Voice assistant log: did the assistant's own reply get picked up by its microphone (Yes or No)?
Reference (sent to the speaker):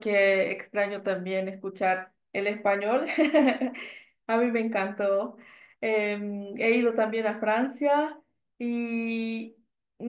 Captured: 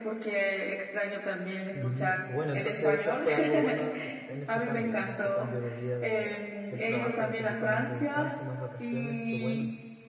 Yes